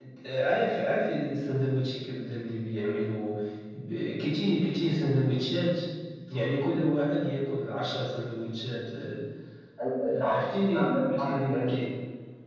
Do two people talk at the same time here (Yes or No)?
Yes